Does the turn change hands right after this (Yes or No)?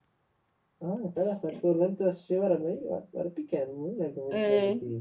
Yes